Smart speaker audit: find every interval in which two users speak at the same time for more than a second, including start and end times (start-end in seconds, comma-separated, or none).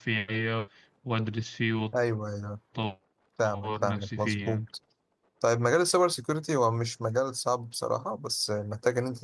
3.4-4.7